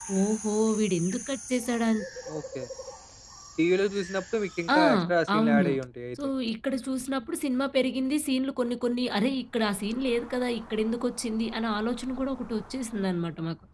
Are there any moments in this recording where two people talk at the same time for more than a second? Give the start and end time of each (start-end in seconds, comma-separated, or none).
none